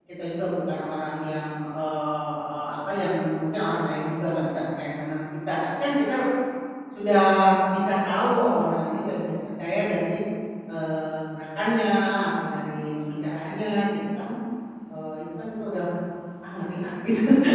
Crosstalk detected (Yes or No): No